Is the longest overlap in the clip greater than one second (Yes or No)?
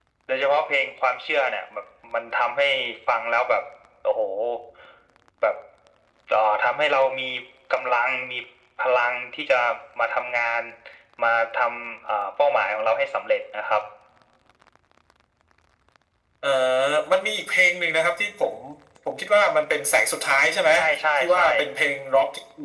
No